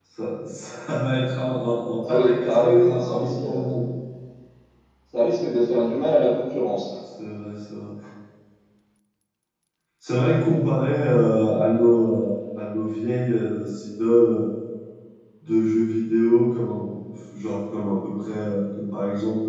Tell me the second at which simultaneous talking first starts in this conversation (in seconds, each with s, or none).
2.0 s